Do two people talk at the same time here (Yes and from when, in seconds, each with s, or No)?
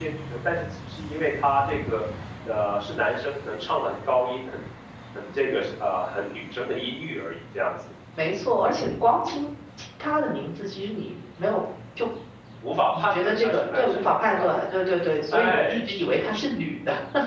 Yes, from 12.9 s